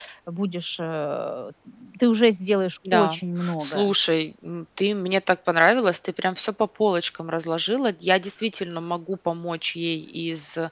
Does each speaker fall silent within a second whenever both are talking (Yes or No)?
Yes